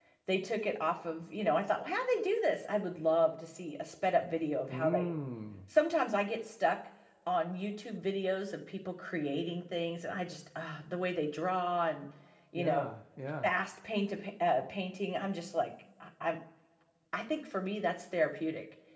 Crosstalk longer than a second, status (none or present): none